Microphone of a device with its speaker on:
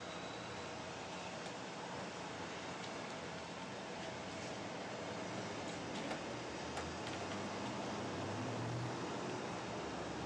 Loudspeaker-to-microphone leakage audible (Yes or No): No